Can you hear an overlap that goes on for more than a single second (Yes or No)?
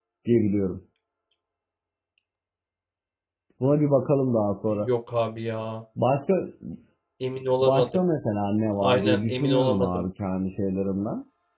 Yes